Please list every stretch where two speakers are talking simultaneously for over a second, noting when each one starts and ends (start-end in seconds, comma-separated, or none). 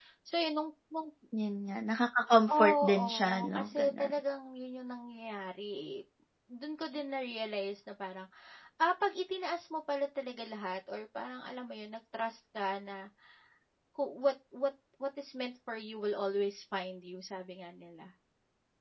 2.5-4.1